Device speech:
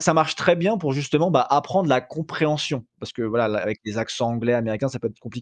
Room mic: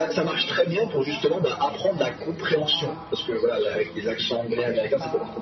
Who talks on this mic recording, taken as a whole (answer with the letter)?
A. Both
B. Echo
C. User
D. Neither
A